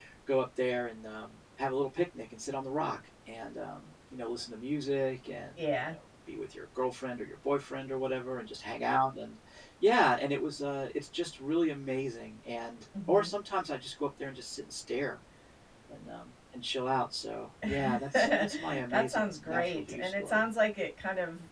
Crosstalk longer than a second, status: present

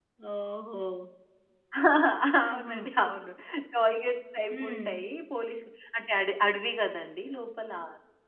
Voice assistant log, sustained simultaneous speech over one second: none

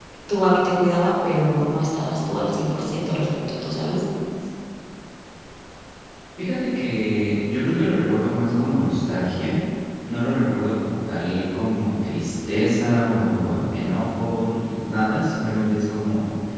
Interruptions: none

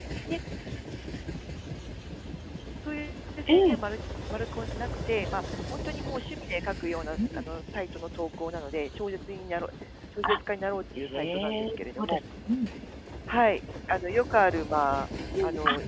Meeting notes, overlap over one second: present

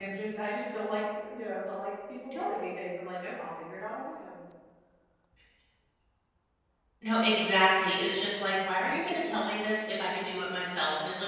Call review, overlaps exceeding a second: none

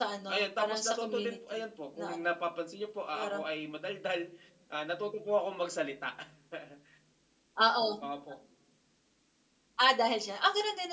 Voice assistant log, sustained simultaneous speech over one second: present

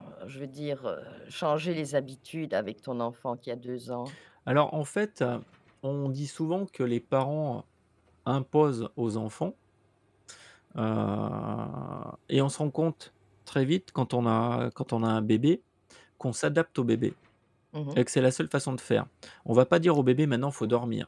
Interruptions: none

